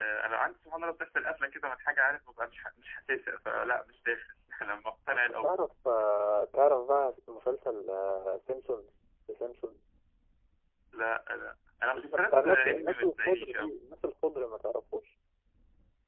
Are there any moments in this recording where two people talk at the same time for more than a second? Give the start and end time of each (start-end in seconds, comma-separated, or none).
12.1-13.8